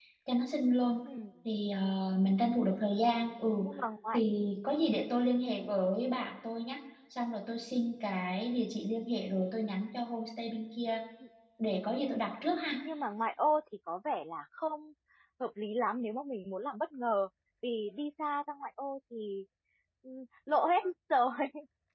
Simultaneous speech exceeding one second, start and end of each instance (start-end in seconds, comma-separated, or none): none